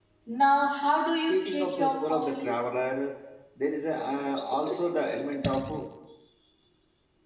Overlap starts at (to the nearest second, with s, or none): 1 s